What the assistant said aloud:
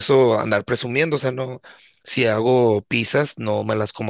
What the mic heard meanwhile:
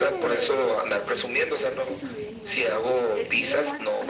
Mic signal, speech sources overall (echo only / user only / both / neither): both